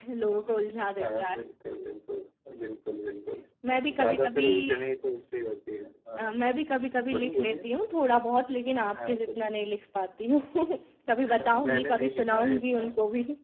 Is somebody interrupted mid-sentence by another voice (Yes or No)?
Yes